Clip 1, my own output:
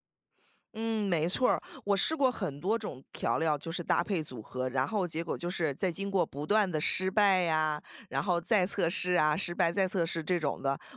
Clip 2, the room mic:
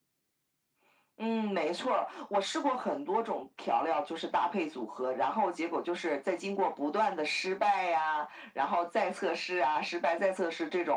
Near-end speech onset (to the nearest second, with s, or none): none